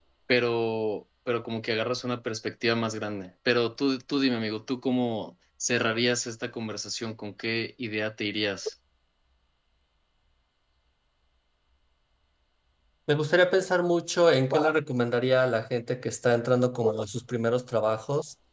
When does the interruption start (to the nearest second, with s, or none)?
none